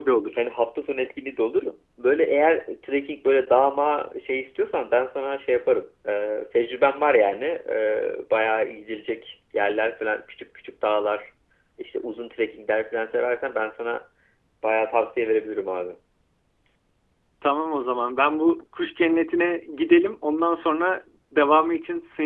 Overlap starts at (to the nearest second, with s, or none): none